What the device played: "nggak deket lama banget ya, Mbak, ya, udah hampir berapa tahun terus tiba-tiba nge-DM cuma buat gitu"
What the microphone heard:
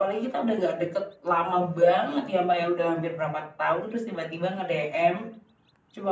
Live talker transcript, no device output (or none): none